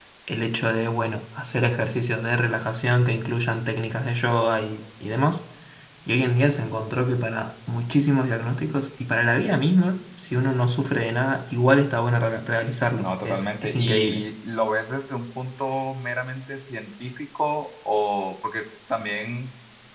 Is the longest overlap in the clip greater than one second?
Yes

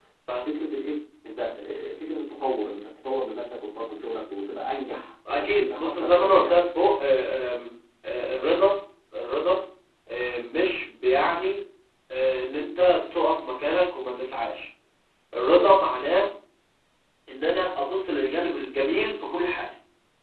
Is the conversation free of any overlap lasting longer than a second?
No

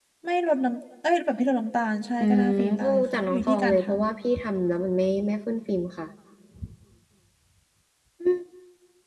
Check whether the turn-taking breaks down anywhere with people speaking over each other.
Yes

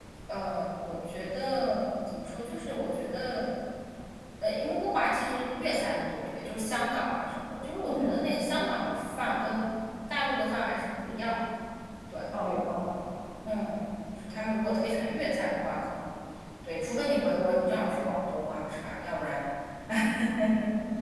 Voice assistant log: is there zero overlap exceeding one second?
Yes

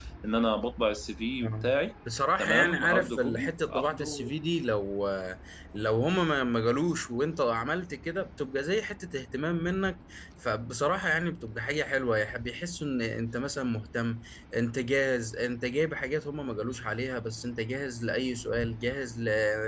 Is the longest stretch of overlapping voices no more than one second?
No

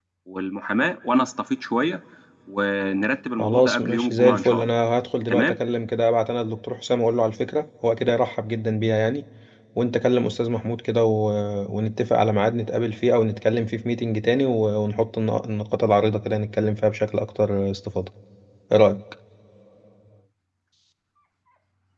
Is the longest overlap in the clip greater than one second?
Yes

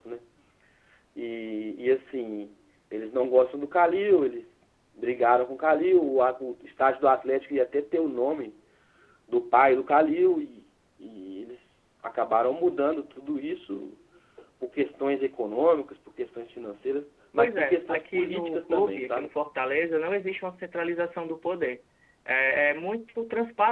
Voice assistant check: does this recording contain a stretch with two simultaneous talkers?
Yes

